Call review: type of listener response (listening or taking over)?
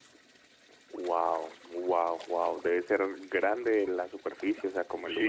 taking over